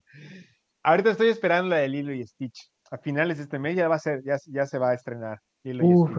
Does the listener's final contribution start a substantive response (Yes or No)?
Yes